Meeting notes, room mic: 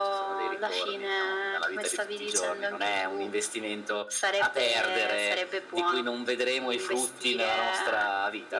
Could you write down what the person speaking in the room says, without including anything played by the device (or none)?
none